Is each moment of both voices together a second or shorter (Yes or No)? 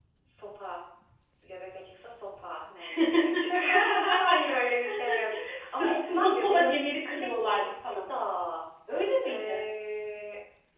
No